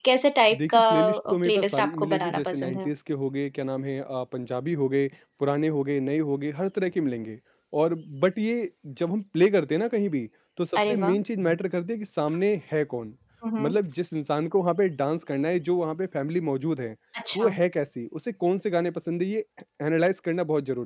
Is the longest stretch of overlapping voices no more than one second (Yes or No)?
No